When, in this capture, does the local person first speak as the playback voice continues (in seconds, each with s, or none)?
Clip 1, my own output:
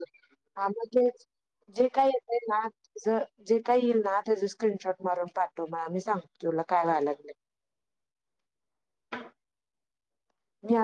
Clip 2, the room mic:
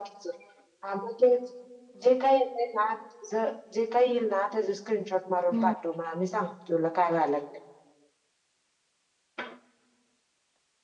5.3 s